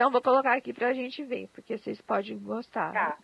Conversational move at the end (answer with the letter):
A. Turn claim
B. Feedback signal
A